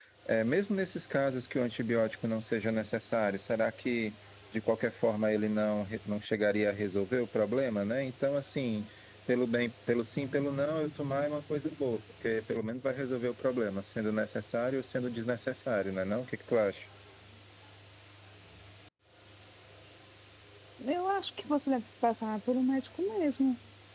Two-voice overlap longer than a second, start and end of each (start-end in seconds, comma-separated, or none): none